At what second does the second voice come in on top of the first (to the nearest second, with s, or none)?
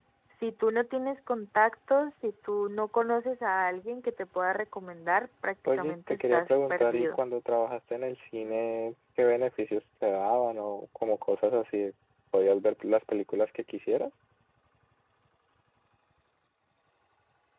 6 s